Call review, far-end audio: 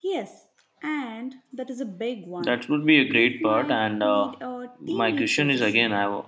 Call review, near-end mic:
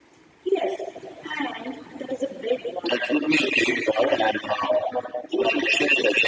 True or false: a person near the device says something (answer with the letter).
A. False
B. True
A